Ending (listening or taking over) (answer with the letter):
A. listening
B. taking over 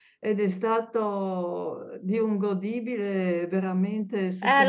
B